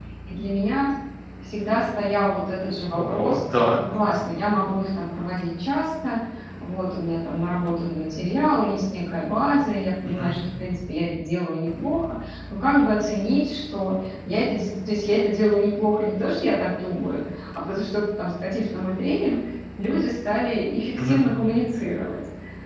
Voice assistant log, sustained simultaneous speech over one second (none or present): none